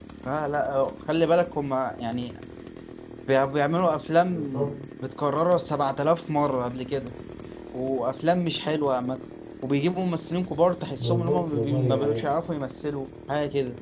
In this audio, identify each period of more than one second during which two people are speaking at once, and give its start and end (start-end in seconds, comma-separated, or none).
11.0-12.3